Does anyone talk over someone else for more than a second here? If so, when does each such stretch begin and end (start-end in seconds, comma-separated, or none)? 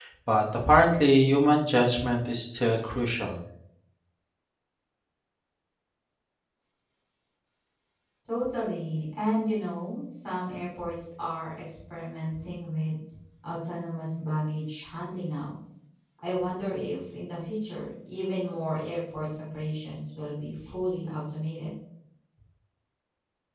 none